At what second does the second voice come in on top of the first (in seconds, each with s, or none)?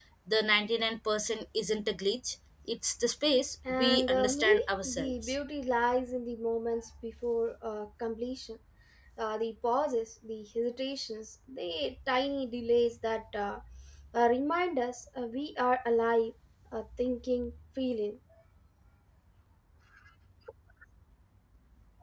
3.6 s